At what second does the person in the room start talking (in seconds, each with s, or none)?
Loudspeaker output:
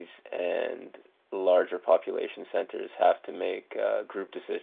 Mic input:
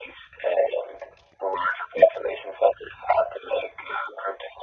none